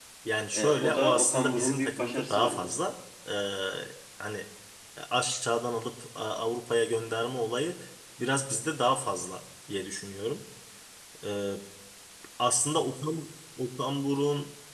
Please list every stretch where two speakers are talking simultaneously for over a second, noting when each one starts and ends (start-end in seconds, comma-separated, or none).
0.5-2.7